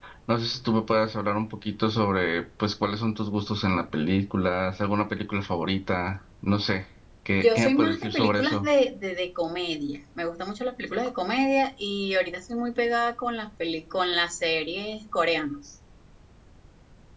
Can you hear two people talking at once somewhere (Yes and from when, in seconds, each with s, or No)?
Yes, from 7.4 s